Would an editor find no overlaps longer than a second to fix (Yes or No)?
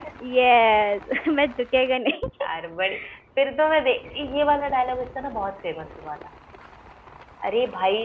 Yes